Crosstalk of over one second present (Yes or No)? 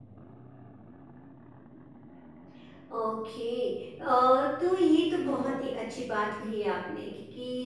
No